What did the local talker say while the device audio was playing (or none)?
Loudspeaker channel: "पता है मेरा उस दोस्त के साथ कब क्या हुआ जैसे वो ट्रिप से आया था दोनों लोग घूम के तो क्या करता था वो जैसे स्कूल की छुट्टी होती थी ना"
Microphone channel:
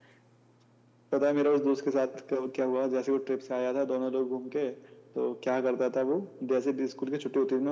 none